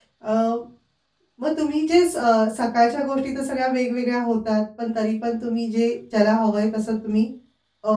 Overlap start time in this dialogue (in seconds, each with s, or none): none